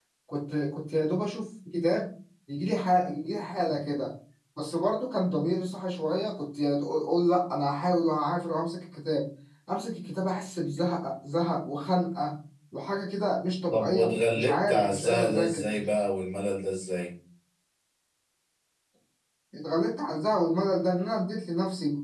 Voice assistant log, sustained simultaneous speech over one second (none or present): present